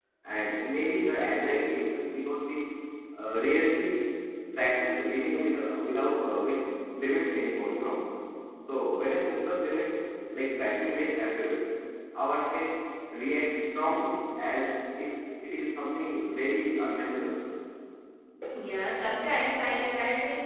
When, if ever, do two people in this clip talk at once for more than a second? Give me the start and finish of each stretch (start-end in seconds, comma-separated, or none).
none